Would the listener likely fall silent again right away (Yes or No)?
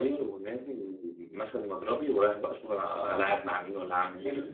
No